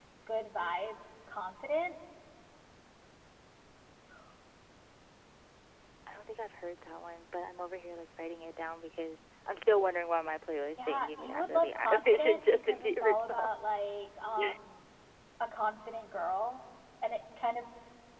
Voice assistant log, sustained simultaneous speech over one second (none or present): present